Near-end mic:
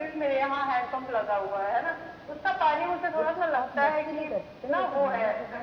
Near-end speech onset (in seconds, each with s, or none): 3.2 s